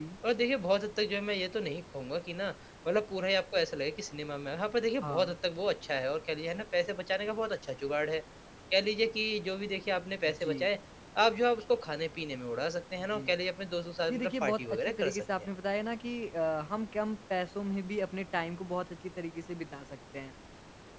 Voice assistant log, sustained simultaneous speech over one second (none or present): present